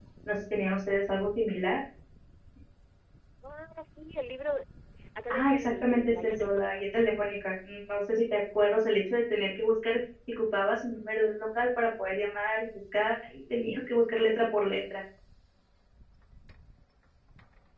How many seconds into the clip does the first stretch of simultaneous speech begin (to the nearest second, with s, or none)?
5 s